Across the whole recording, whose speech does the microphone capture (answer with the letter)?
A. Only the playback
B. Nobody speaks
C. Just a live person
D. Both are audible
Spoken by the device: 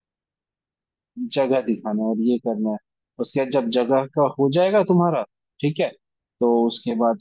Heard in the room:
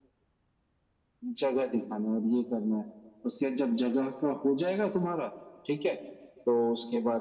A